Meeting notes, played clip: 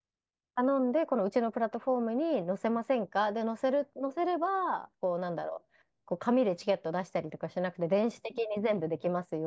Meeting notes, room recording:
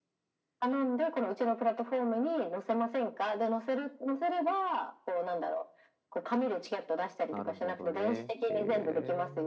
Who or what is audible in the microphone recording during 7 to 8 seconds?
both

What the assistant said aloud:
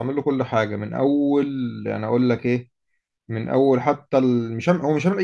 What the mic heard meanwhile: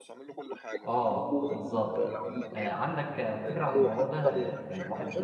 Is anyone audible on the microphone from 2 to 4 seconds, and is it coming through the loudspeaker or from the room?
both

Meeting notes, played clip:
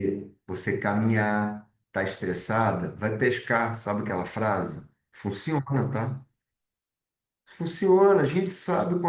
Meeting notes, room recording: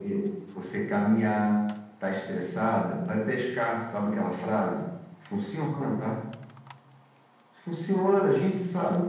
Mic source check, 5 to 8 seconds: echo only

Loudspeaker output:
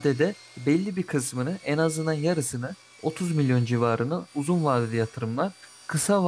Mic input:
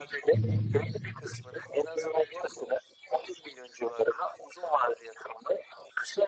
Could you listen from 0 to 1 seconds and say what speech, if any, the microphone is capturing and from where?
both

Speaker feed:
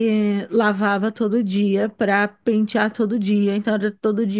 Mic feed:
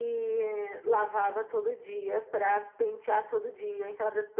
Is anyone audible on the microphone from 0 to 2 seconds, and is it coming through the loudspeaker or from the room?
echo only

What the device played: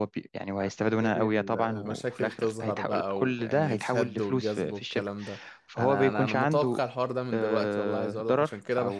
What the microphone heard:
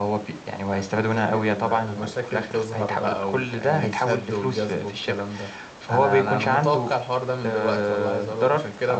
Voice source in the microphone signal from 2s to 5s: echo only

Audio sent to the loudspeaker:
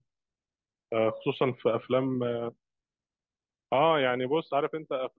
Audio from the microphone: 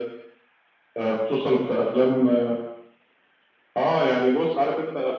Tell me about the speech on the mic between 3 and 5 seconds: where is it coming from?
echo only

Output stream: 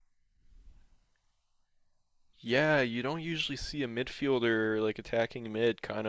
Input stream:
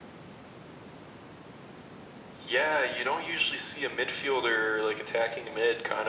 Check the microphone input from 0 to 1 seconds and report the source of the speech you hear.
neither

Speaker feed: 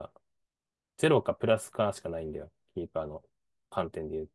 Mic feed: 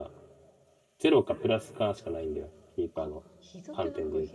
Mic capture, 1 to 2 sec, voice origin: echo only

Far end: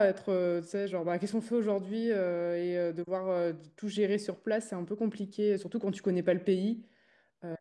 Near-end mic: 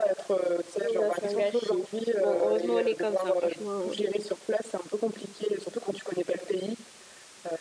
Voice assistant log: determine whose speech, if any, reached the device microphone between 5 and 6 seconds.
echo only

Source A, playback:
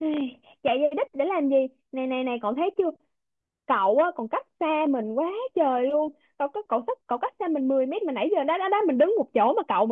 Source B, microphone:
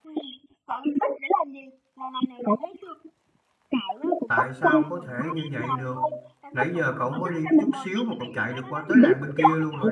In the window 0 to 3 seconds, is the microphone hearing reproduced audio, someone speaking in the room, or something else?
echo only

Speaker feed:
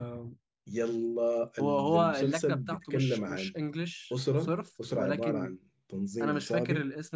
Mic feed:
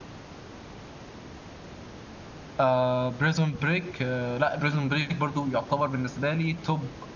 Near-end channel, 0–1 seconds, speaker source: neither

